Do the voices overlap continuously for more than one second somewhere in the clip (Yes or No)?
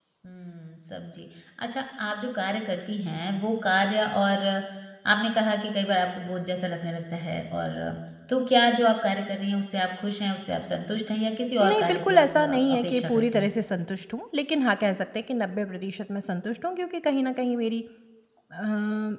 Yes